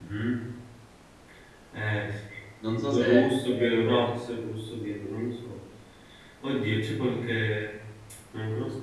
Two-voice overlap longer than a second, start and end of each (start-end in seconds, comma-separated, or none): 2.7-4.1